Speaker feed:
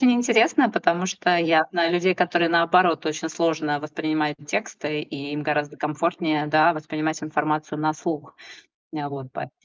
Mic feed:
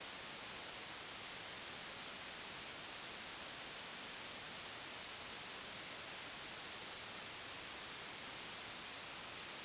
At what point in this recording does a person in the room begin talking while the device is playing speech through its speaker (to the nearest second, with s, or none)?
none